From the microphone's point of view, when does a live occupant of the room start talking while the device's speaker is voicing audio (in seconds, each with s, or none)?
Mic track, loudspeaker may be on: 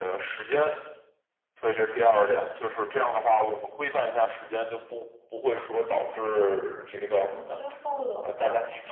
7.0 s